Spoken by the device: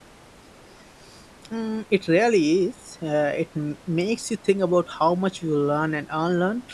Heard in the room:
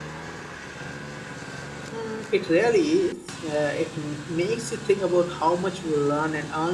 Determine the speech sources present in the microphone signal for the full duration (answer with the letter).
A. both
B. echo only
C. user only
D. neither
B